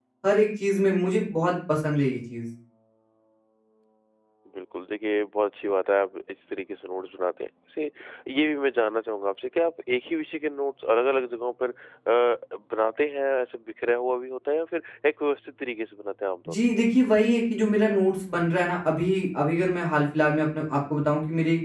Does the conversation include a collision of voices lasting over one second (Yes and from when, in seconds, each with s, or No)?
No